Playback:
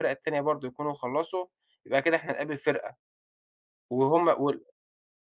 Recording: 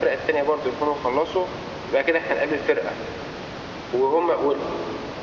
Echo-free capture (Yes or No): No